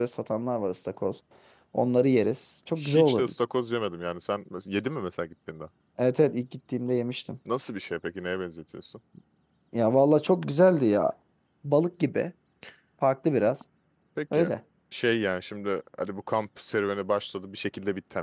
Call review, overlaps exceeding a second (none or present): none